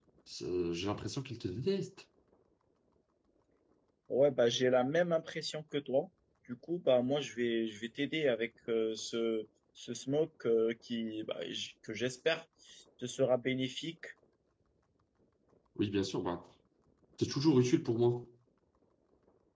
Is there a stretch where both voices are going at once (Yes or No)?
No